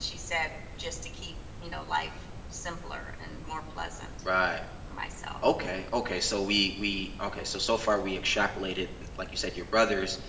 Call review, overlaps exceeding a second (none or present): none